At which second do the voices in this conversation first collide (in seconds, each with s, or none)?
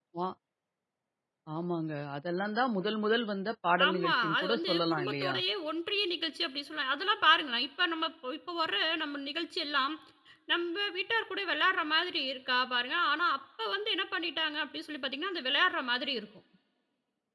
3.8 s